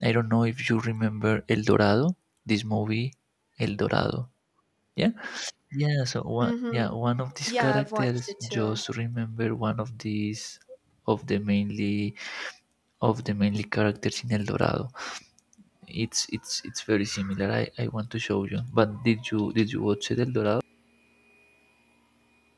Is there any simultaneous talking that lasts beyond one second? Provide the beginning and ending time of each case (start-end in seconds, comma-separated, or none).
7.5-8.8